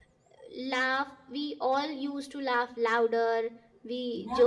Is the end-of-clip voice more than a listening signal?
No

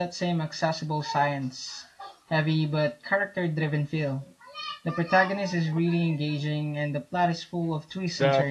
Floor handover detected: Yes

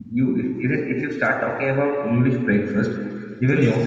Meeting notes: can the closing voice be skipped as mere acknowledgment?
Yes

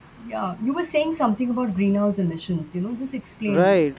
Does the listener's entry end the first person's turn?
Yes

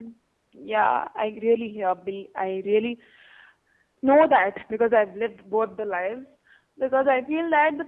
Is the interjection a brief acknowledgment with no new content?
Yes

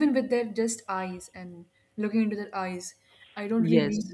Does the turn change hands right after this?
No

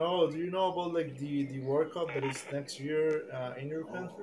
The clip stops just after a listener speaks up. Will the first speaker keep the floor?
No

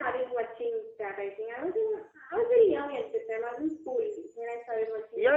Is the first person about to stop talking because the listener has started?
Yes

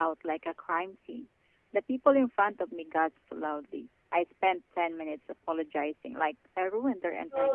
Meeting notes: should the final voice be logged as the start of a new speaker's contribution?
Yes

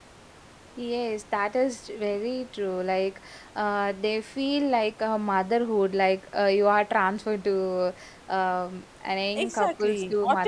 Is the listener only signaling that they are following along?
No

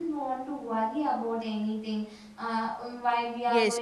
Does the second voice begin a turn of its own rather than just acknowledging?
Yes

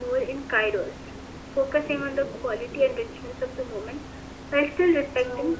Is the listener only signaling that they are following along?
No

